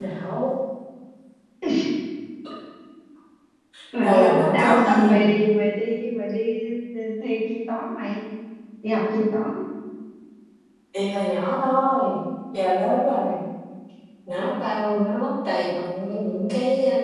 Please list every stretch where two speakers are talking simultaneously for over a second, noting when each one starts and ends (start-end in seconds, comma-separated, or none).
4.0-5.3